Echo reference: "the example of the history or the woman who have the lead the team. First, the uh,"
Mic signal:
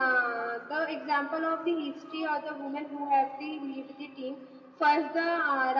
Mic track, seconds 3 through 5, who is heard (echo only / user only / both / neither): echo only